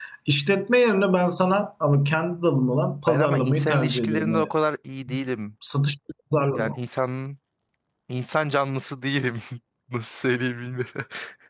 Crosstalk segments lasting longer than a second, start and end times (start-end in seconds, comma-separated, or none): 3.1-4.5